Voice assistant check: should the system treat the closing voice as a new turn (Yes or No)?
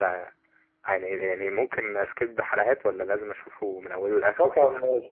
Yes